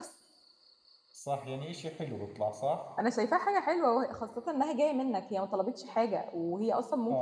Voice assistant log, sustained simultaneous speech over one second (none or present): none